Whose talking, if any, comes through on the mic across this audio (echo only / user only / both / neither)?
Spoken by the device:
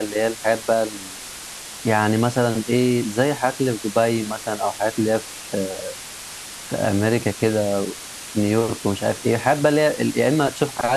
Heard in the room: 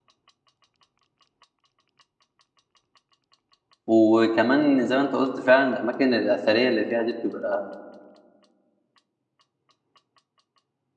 user only